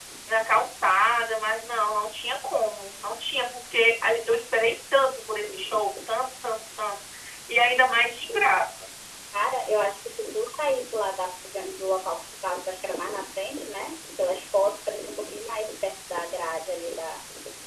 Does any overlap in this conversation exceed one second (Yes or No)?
No